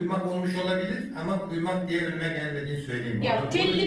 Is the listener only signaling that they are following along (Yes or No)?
No